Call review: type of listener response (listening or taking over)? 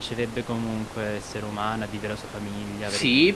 taking over